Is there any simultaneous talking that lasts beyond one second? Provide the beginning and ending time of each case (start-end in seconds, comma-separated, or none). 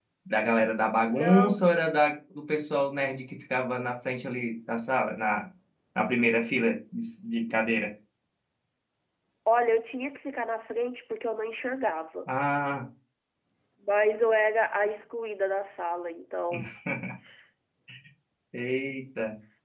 none